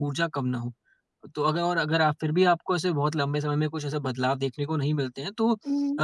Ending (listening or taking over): listening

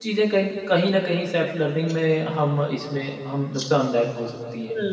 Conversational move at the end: taking over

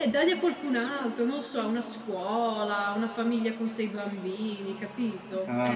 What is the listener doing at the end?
taking over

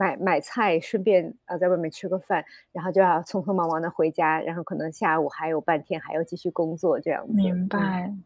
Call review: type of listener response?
taking over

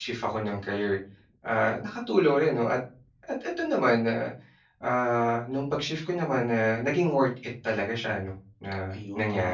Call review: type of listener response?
taking over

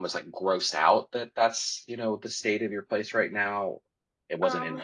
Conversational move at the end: listening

